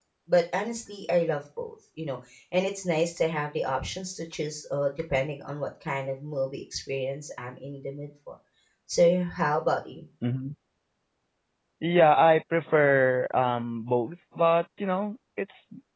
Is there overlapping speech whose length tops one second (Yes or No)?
No